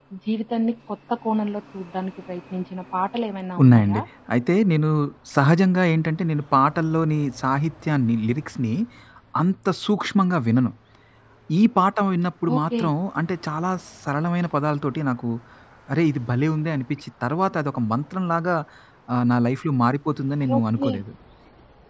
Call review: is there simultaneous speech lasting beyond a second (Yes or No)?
No